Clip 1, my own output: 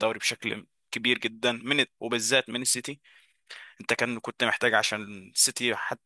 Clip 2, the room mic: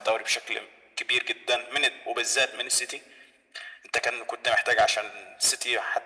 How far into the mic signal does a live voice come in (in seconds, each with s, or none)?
none